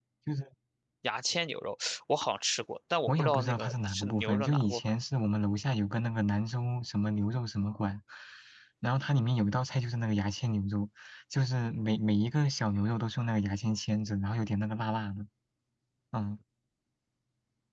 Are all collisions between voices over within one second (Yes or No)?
No